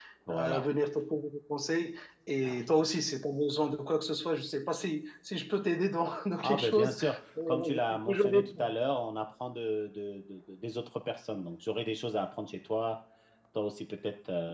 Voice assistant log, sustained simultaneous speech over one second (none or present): present